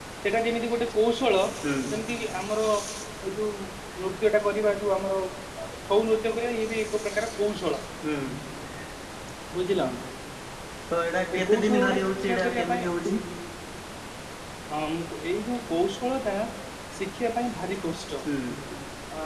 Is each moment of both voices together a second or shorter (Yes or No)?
No